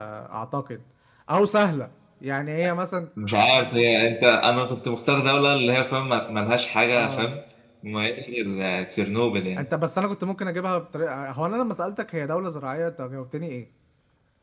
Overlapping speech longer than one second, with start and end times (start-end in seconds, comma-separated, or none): none